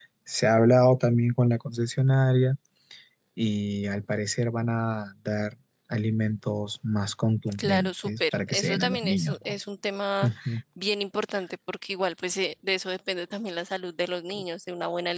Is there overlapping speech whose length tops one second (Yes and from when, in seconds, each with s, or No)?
Yes, from 7.6 s